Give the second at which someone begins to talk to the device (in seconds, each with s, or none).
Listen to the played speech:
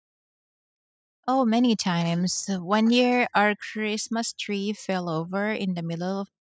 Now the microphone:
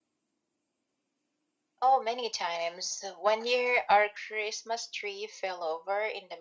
none